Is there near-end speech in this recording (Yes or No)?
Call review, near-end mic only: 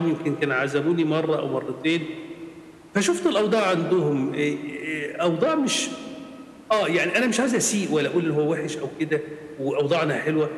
No